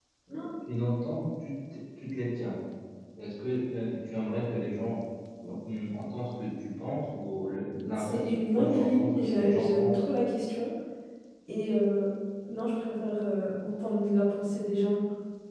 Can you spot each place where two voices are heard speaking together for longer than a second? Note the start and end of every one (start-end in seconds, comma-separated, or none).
8.0-10.0